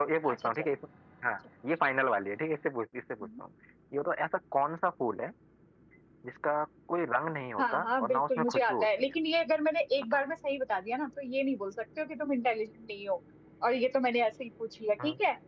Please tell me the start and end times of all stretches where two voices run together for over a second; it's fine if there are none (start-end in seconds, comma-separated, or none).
7.6-9.2